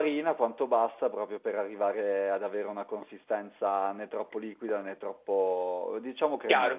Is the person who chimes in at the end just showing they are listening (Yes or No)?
No